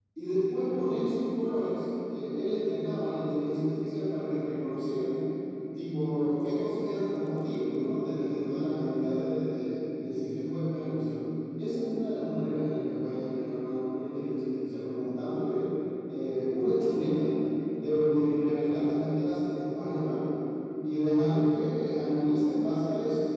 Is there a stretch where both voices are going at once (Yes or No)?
No